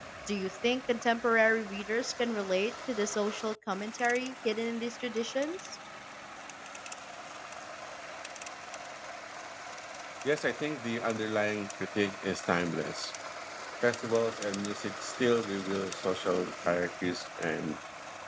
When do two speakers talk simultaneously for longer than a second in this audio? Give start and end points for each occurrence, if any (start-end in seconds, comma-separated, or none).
none